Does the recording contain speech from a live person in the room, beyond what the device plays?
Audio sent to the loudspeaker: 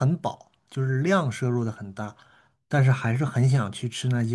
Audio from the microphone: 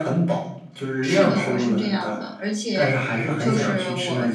Yes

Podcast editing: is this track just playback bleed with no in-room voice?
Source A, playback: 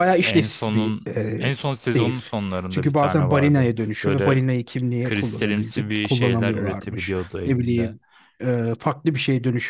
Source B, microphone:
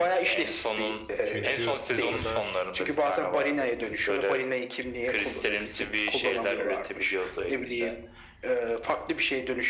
No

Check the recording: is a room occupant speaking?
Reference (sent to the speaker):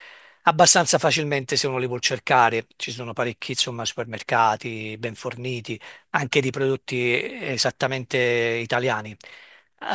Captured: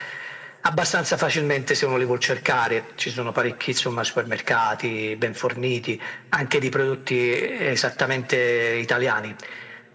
No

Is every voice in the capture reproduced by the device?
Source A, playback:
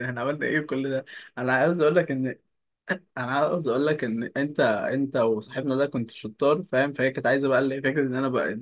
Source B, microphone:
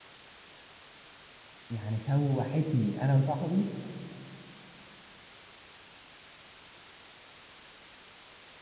No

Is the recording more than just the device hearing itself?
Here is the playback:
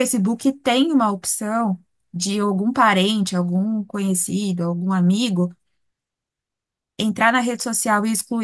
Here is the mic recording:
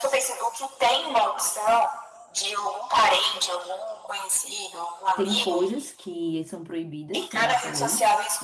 Yes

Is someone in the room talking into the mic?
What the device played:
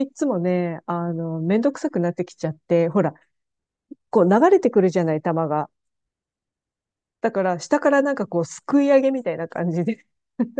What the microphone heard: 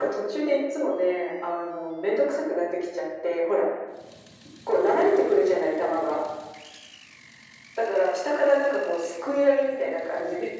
No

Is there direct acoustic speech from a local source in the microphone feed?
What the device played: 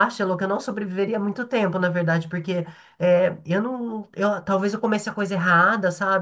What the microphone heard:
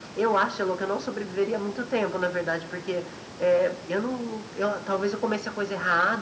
No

